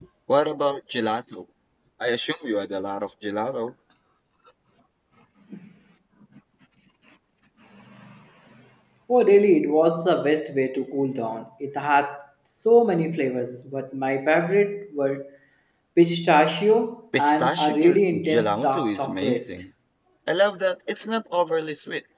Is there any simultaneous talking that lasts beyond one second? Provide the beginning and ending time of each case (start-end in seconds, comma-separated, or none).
17.2-19.5